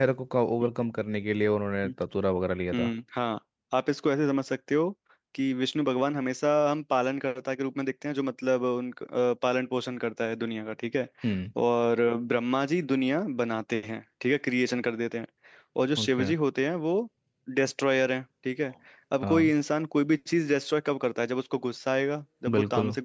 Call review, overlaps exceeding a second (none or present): none